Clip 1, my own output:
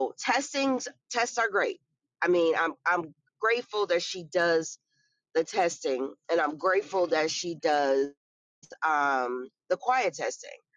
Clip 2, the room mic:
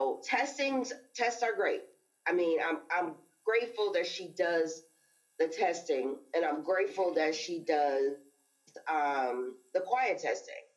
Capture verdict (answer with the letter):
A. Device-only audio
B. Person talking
A